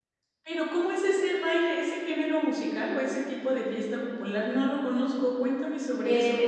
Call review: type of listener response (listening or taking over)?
taking over